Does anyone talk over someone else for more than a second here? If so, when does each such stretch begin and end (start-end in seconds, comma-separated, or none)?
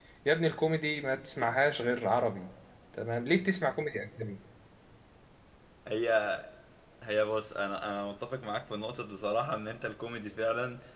none